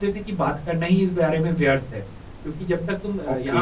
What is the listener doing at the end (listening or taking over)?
listening